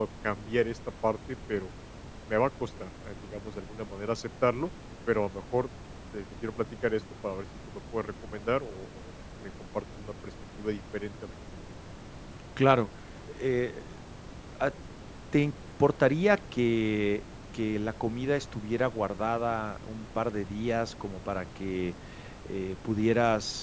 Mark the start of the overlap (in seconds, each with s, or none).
none